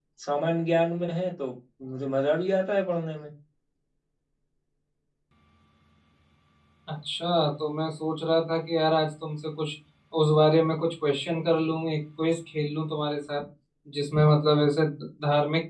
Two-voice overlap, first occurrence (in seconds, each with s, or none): none